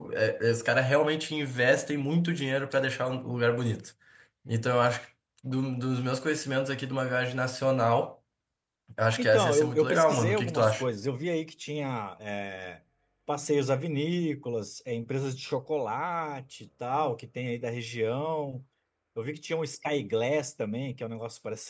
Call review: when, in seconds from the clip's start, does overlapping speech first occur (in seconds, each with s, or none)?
9.2 s